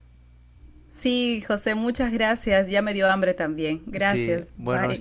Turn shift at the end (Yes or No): Yes